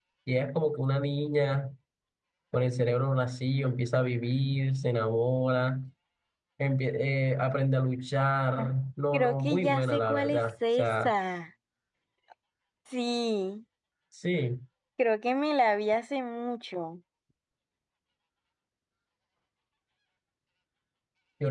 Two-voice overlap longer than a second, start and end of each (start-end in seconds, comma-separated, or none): 9.1-11.1